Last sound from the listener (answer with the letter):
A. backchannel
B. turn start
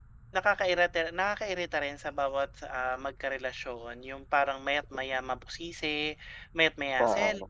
A